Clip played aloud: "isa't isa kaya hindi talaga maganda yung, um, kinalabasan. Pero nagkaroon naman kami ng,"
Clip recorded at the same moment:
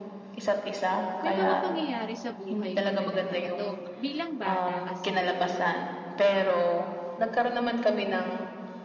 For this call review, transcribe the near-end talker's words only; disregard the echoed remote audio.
may mga pangyayari sa buhay ko talaga. Eto, bilang bata kasi,

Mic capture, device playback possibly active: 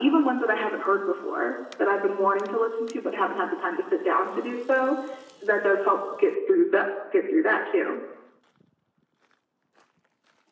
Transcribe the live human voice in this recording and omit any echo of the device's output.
none

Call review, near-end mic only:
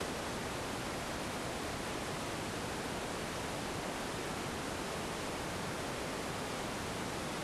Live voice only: none

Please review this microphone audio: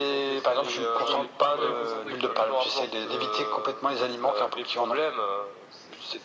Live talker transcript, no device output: jouer un petit peu égocentrique, tu vois?

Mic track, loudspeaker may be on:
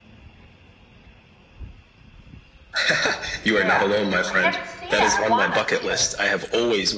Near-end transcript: Yeah, I haven't seen it. I want to see it.

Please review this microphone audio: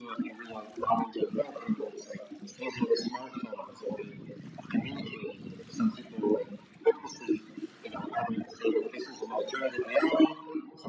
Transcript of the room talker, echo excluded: none

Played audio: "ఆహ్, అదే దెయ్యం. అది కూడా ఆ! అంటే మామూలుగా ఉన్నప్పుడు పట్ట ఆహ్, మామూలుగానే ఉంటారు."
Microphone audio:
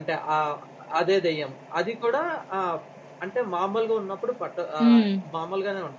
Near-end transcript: హ్మ్.

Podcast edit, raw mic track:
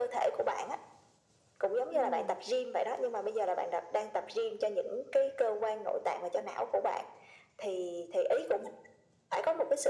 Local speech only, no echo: ừm,

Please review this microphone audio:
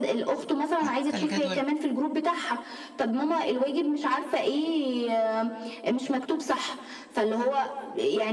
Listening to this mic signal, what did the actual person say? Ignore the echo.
حتى الجدول

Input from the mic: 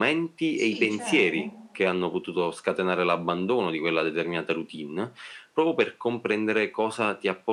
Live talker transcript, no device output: Sì, certo.

